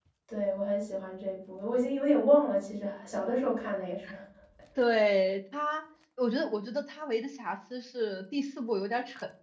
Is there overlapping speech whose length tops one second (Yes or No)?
No